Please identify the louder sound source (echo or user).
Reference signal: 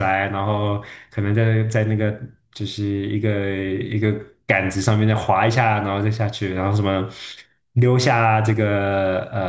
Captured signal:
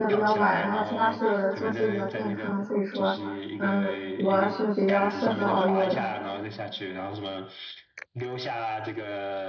user